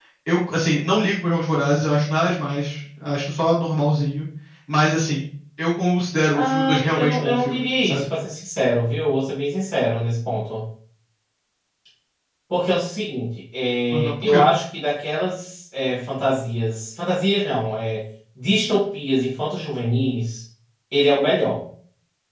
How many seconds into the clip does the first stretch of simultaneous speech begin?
6 s

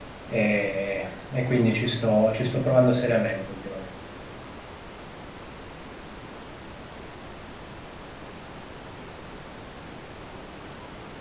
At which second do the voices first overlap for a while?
none

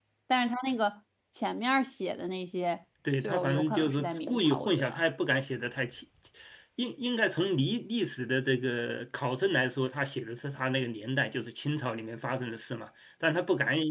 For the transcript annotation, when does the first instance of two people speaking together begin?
3 s

